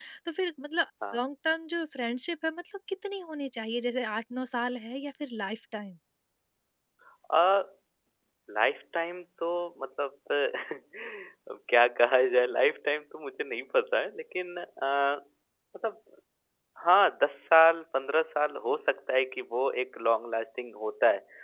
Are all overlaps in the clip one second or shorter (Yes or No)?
Yes